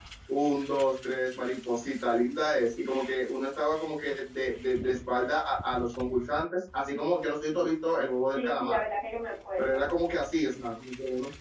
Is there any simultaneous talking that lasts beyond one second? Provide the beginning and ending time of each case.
none

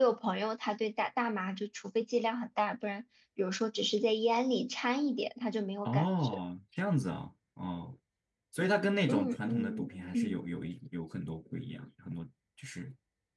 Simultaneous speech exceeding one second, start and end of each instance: 9.1-10.4

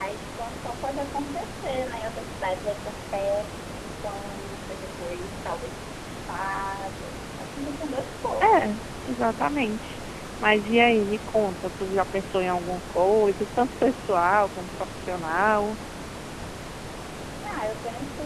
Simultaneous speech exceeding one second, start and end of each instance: none

